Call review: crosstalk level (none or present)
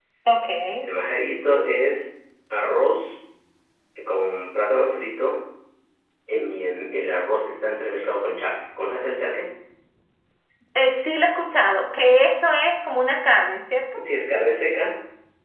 none